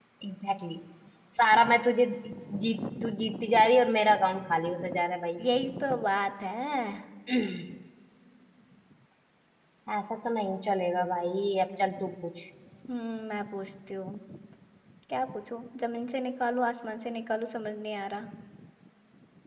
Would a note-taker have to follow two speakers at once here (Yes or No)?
No